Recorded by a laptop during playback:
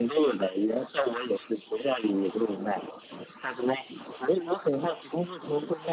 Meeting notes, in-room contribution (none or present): none